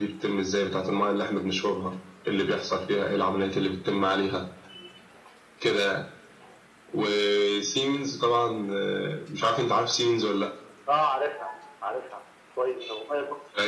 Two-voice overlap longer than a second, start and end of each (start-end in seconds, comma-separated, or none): none